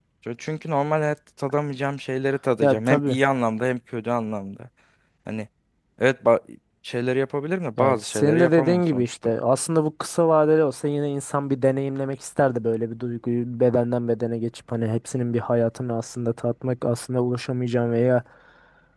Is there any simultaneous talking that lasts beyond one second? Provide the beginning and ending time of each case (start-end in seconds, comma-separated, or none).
7.8-9.0